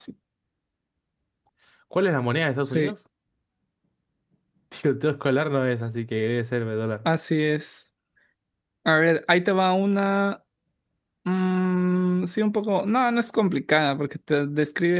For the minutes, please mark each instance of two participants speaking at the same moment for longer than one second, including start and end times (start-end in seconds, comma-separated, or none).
none